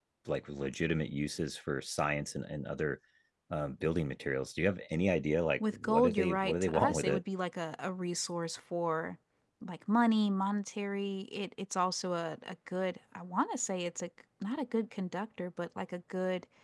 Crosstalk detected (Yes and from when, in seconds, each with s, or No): Yes, from 5.6 s